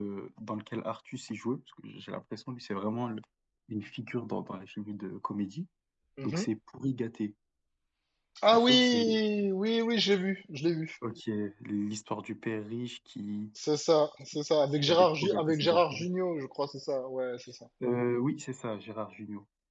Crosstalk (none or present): present